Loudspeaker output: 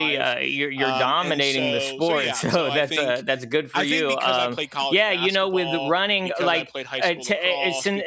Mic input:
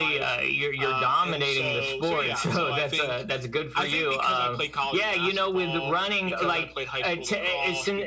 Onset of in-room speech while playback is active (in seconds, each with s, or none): none